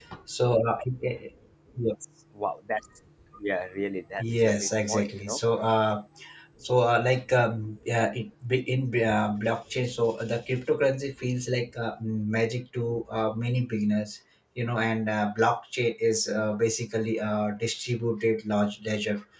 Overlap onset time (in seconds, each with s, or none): 4.2 s